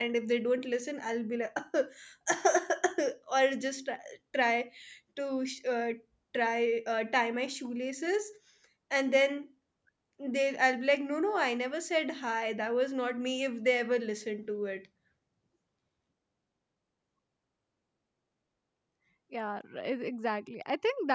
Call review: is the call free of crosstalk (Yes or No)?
Yes